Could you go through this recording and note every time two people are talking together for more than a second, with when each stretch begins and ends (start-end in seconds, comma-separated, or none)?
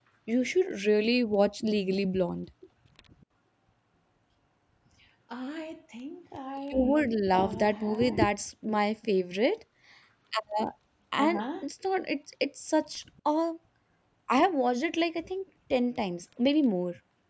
6.7-8.2